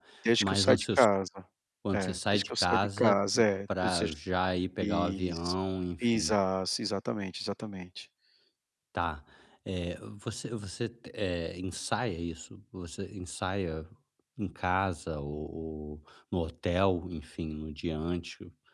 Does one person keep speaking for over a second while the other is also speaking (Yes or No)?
Yes